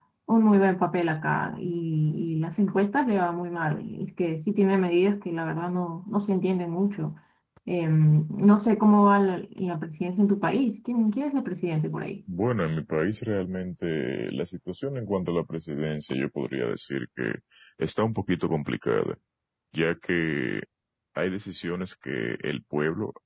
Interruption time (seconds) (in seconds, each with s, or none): none